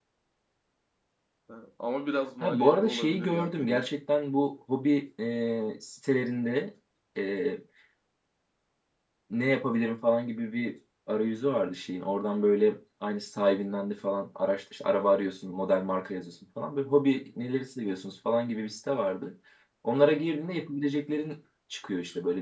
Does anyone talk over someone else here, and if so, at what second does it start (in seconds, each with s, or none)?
2.4 s